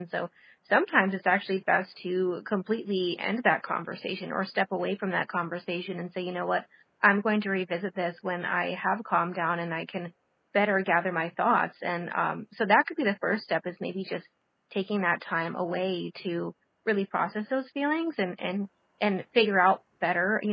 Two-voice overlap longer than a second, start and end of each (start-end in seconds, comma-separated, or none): none